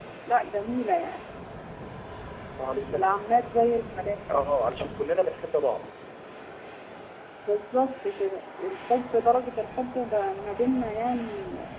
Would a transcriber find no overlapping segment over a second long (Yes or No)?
Yes